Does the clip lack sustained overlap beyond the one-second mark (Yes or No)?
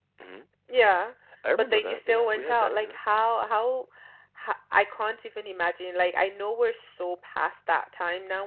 No